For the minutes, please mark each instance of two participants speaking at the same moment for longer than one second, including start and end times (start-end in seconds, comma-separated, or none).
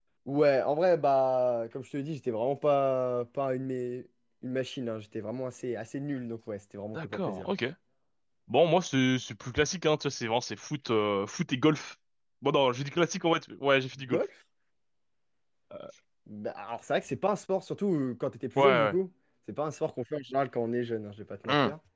none